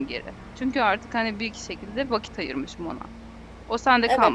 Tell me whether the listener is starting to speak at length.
No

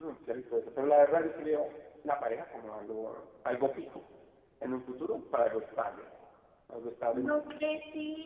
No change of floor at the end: No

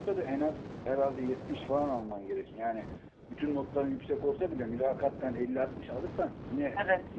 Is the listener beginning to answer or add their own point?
Yes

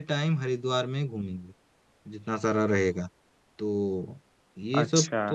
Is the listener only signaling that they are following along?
No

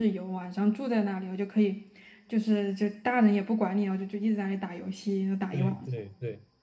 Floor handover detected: Yes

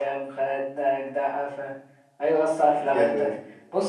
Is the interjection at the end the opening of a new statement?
No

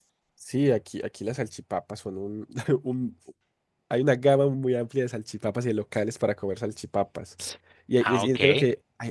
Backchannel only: Yes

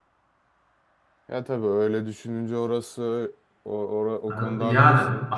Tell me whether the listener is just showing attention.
No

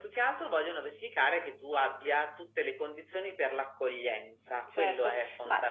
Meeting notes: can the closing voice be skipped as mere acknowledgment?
No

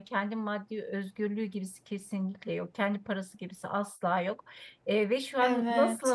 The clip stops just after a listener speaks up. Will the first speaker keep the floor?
Yes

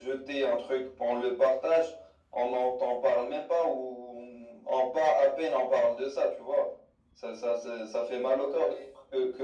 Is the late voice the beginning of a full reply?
No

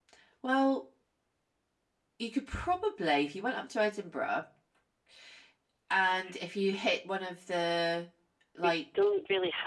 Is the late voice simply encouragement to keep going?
No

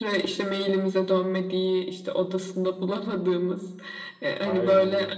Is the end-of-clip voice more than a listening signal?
No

